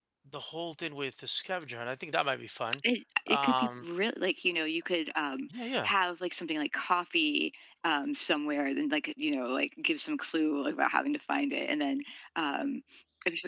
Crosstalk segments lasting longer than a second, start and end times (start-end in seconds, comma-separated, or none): none